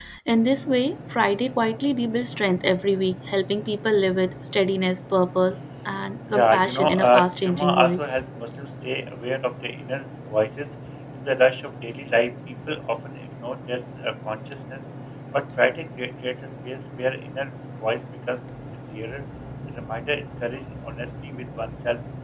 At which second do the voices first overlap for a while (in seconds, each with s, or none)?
6.3 s